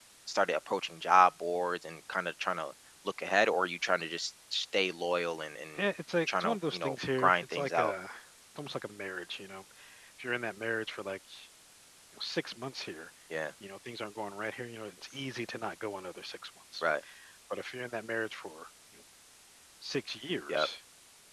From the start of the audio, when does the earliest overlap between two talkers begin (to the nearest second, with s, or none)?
6 s